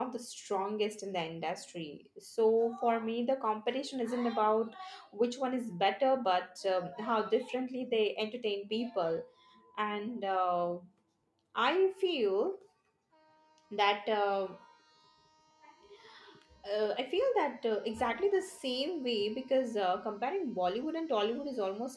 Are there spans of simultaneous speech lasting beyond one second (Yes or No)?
No